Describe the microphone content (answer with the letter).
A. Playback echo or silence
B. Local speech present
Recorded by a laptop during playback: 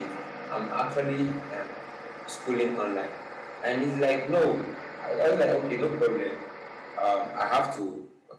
A